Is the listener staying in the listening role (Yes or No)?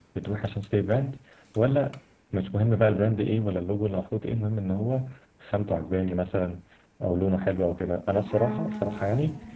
Yes